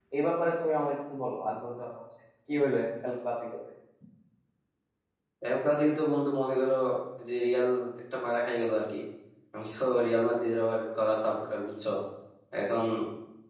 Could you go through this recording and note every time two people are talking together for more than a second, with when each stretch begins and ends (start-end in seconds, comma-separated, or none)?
none